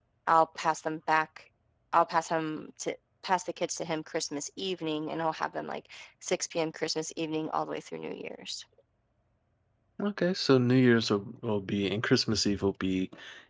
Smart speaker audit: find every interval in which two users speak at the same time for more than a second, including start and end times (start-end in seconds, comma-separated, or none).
none